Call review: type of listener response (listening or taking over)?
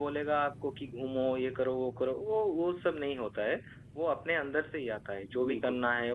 listening